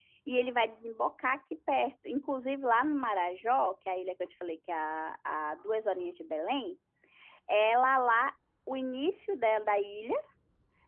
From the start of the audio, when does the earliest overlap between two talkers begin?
none

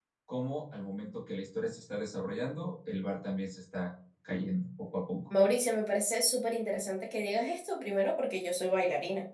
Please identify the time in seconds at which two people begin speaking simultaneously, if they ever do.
none

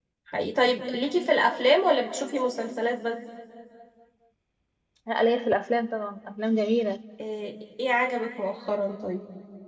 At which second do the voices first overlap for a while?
none

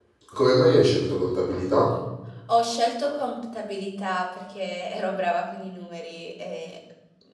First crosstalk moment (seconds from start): none

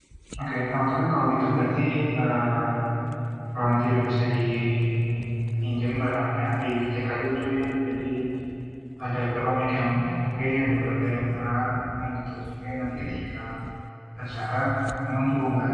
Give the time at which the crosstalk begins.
none

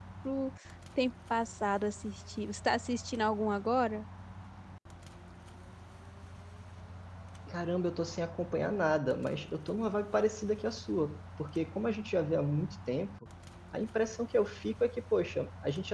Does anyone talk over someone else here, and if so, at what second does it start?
none

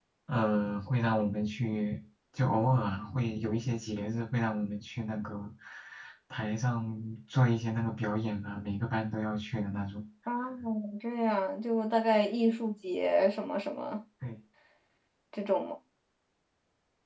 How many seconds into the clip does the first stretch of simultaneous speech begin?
none

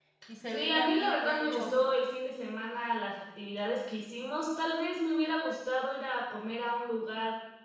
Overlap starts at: 1 s

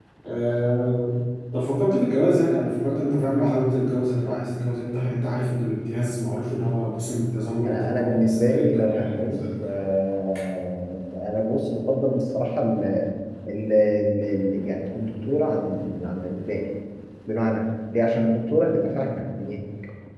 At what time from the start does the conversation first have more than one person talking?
8 s

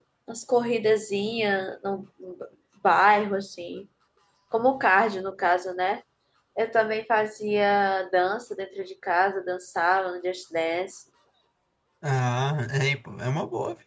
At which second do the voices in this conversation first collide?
none

